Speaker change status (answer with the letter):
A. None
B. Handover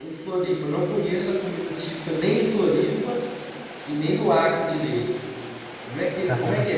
A